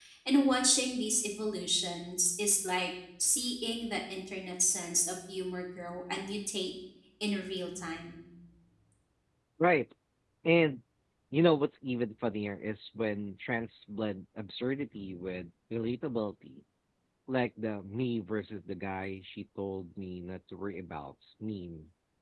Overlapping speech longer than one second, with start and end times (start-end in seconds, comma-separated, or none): none